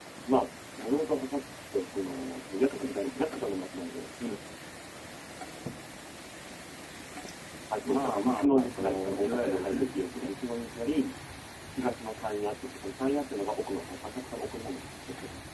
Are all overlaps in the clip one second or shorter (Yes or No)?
No